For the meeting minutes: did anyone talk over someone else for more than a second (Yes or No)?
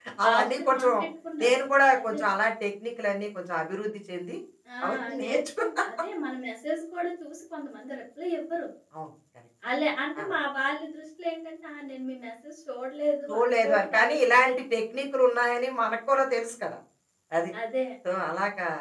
Yes